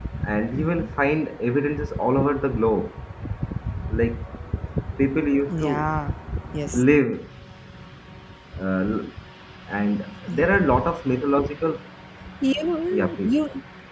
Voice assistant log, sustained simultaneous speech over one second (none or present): none